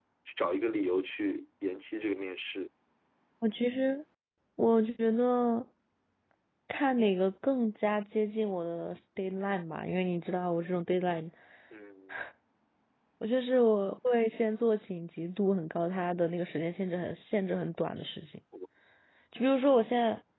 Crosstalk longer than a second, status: none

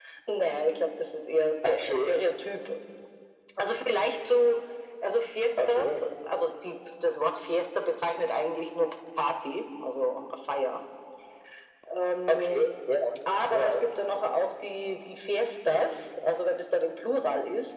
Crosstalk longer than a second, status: none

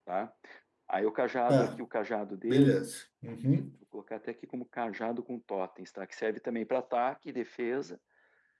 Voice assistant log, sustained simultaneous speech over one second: none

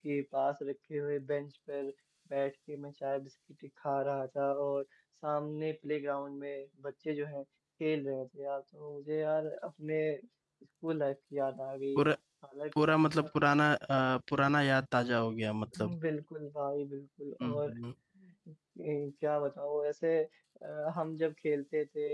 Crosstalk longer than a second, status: none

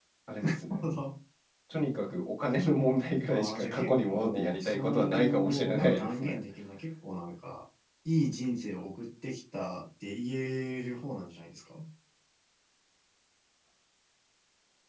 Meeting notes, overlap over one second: present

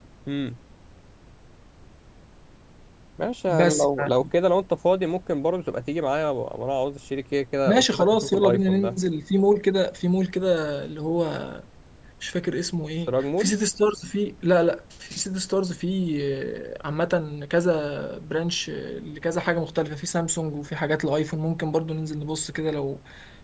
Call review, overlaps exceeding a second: present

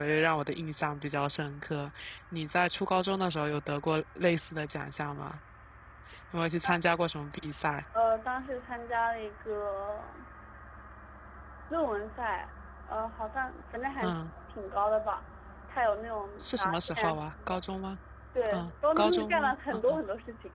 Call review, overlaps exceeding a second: present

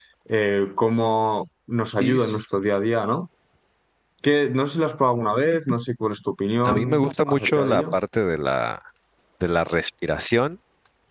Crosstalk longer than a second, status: present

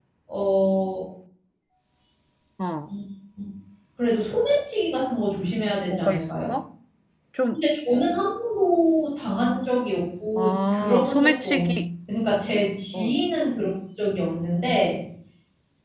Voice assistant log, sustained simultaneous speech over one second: present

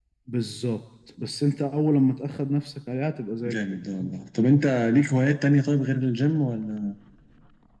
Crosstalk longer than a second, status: none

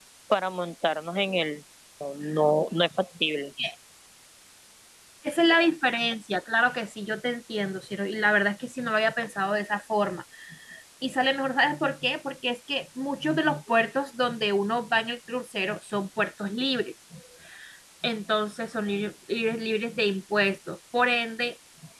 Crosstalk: none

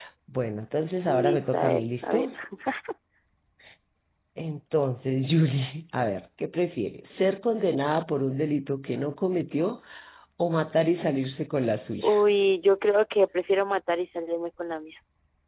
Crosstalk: present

